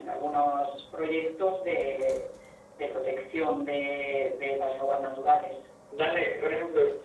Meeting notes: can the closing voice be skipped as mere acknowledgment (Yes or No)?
No